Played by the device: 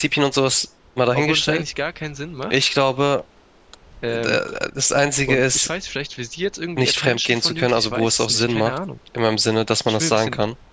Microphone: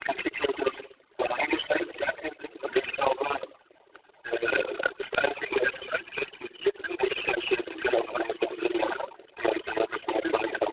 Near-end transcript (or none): none